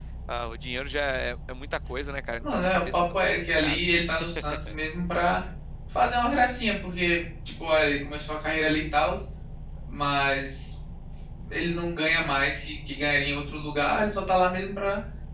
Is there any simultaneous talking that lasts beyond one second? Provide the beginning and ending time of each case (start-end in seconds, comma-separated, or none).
2.4-3.8